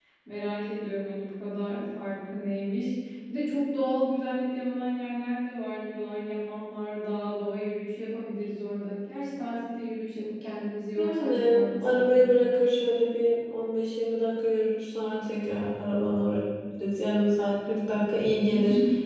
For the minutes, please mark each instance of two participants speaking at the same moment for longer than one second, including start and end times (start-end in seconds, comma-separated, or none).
11.0-12.3